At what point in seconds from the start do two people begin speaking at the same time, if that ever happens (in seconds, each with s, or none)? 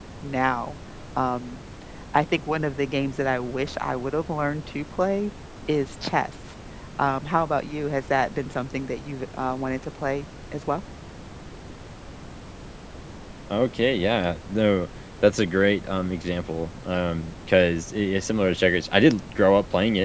none